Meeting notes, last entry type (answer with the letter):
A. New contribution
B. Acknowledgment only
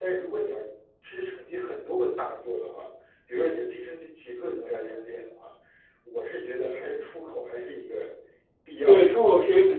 A